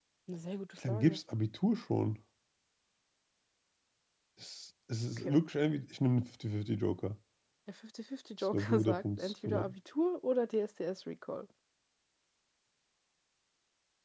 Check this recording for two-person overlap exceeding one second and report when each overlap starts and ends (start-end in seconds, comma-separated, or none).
8.5-9.7